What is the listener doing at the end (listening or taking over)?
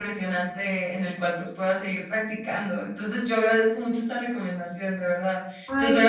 listening